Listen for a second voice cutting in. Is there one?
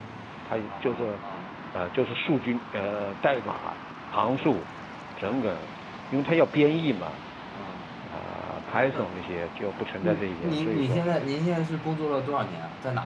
Yes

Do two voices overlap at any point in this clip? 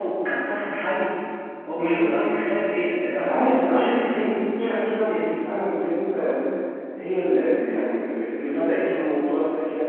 Yes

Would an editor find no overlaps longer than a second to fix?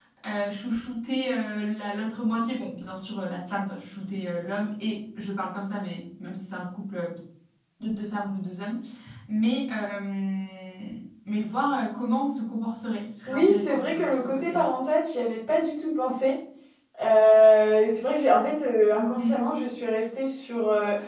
No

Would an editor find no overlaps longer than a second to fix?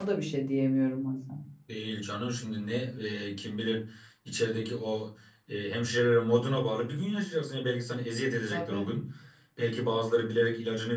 Yes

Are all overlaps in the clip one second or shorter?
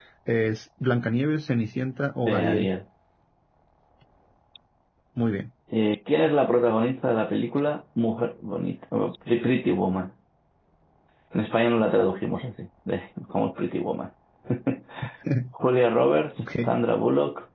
Yes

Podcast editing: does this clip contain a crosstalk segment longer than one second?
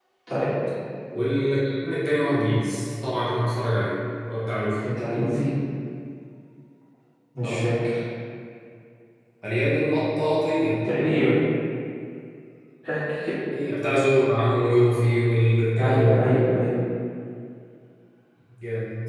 No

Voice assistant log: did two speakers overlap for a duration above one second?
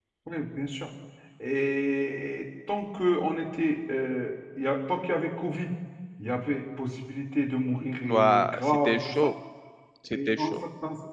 Yes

